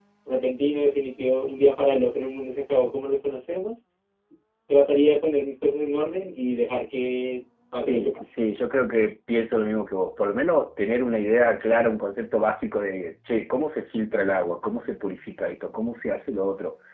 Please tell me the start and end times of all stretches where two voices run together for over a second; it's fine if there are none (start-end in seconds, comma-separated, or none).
none